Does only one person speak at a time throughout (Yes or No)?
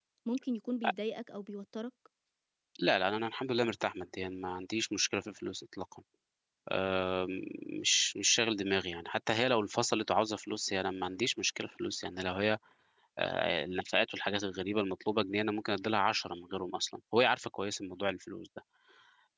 Yes